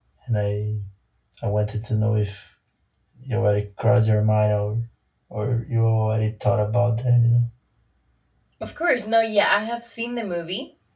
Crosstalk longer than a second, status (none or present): none